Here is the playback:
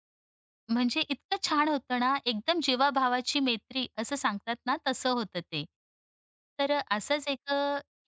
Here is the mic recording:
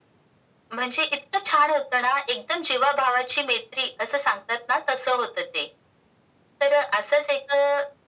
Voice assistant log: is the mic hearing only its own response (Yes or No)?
Yes